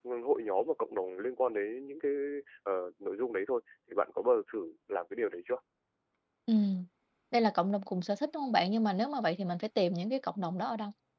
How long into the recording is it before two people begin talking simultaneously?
none

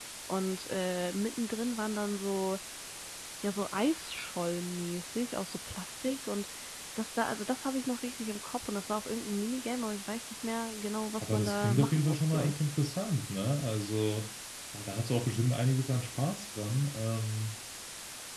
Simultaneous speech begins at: 11.2 s

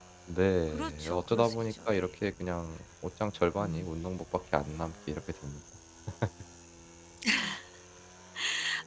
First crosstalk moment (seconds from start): 0.7 s

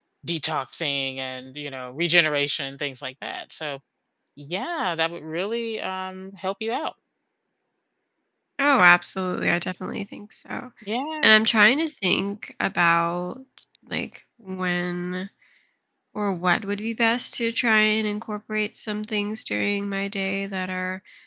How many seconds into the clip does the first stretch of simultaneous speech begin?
none

